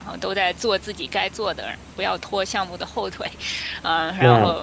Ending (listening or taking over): listening